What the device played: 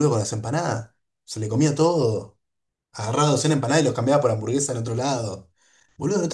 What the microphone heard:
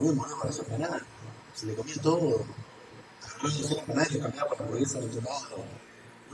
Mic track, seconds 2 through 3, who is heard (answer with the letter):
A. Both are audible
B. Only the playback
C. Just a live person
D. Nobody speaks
B